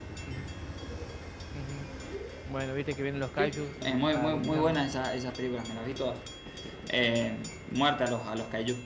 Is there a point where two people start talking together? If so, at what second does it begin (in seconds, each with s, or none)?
3.4 s